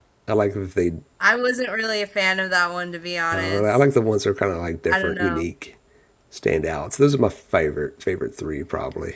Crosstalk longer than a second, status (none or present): none